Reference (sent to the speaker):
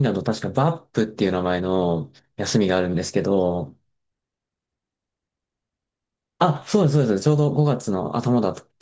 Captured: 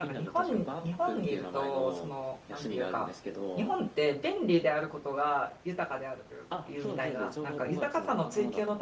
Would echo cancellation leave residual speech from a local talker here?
Yes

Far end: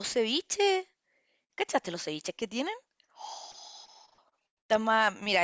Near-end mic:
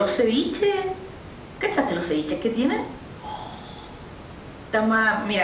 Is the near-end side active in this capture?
No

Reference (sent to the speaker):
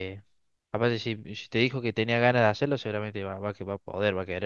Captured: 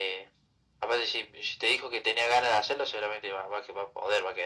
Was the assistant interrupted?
No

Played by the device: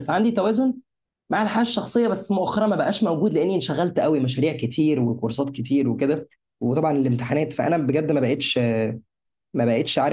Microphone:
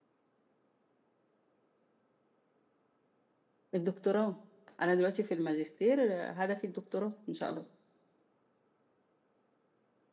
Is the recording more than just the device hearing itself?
Yes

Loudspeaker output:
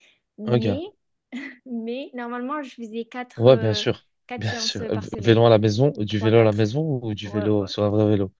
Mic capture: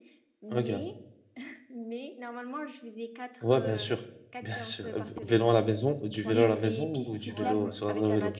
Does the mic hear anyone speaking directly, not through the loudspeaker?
Yes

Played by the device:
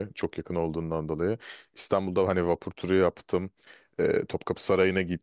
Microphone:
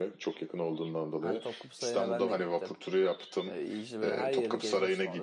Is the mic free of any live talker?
No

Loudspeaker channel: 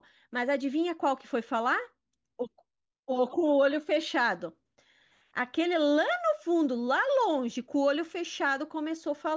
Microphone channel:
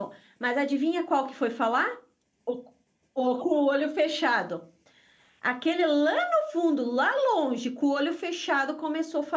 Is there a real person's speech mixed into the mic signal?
No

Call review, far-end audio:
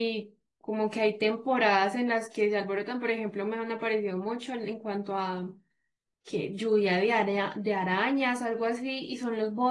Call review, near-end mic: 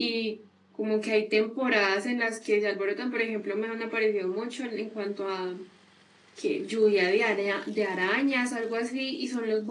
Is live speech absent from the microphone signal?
Yes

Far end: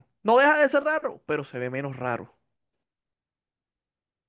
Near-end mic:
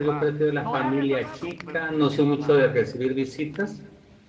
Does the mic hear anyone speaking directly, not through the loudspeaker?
Yes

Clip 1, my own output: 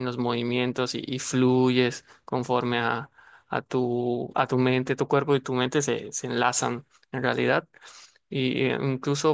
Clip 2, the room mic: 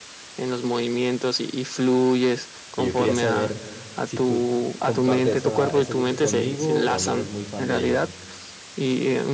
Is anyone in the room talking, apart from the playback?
Yes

